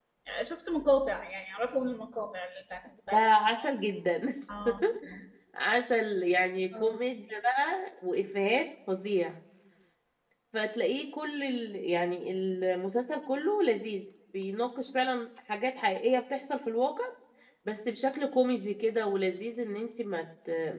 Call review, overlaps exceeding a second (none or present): none